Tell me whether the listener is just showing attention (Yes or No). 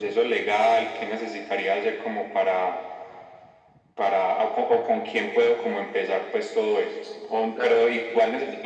Yes